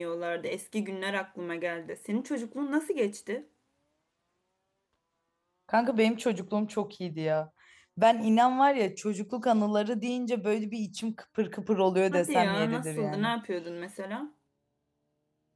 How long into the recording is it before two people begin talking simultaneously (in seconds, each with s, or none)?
12.1 s